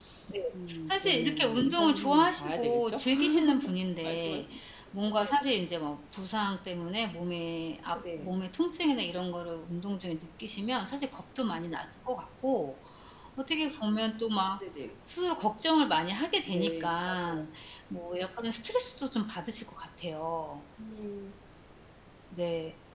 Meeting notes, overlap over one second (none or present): present